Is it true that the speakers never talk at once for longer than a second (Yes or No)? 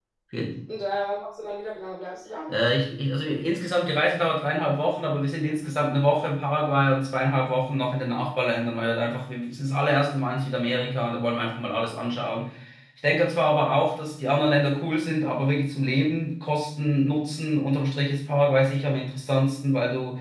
Yes